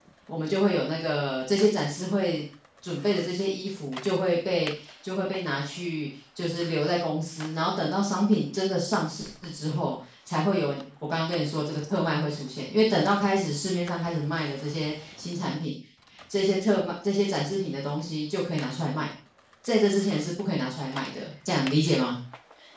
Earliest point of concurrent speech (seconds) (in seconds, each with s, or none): none